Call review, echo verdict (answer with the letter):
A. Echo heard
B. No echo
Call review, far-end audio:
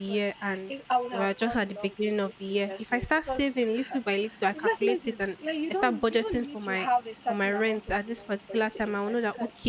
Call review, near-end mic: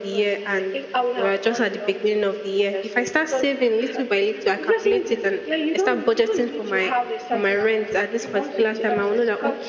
A